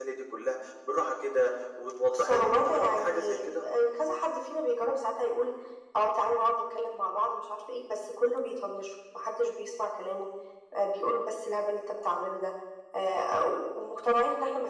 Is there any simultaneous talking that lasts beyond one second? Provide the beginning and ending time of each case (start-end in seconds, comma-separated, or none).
2.1-3.6